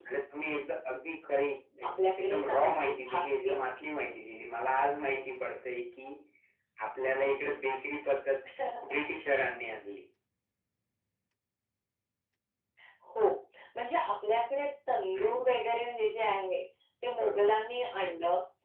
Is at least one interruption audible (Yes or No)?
Yes